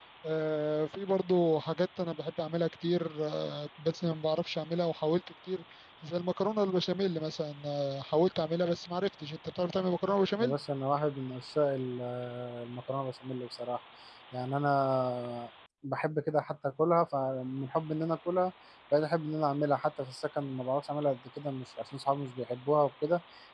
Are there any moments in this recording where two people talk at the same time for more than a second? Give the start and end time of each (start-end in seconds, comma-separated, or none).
none